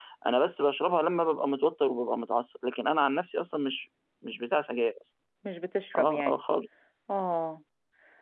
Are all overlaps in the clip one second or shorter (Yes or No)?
Yes